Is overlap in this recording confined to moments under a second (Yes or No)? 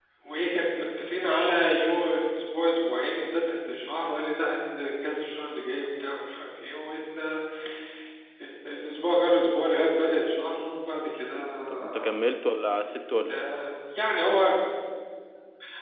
Yes